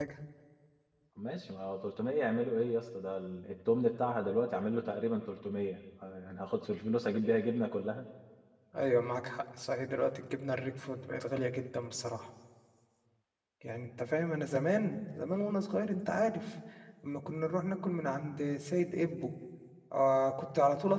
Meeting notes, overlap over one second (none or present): none